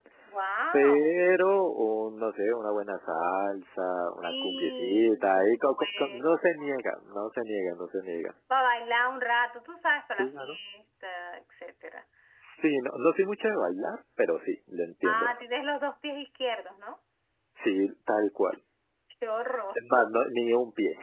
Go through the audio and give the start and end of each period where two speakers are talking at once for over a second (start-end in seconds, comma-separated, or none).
4.2-6.3